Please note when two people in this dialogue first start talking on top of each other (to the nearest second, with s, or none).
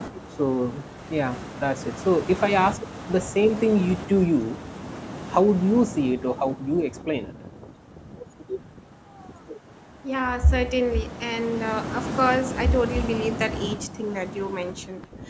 none